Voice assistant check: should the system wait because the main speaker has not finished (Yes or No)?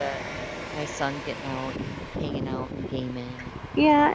No